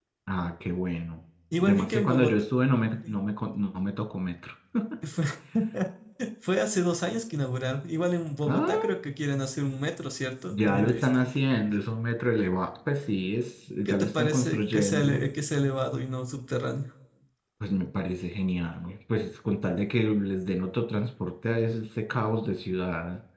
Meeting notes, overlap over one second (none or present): present